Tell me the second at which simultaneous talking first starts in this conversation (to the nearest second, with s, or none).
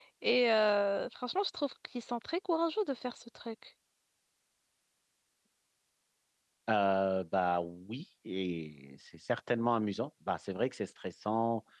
none